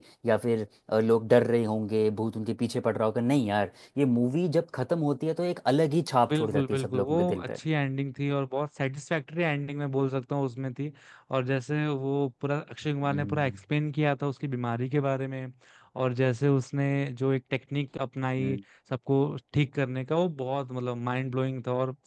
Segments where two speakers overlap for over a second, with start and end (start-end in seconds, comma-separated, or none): 6.3-7.6